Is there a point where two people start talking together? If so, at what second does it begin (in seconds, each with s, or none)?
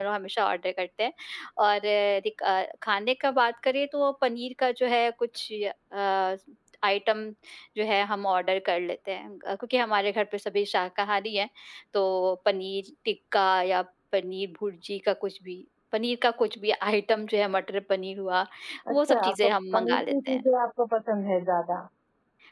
18.9 s